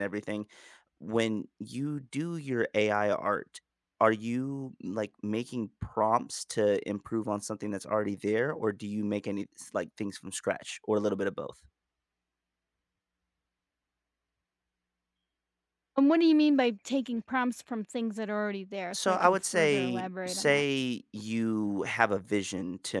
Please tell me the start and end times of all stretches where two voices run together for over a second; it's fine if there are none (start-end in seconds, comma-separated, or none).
18.9-20.6